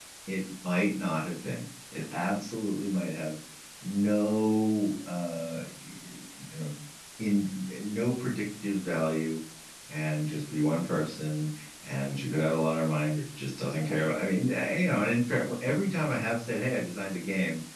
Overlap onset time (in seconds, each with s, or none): none